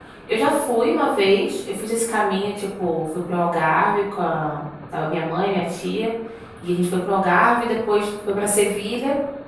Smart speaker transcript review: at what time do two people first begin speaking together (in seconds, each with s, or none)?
none